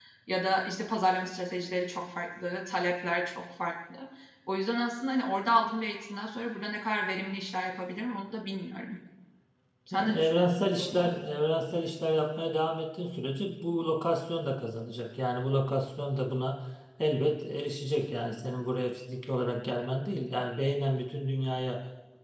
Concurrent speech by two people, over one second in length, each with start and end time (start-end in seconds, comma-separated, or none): 9.9-11.1